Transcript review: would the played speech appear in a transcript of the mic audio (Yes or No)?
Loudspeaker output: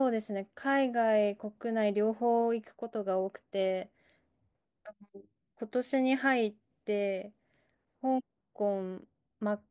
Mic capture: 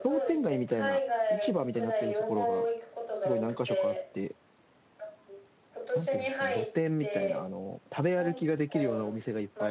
Yes